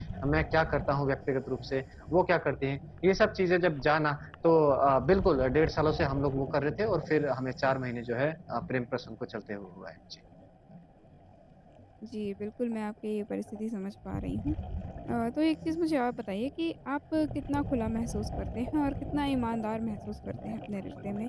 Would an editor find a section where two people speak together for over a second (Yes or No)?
No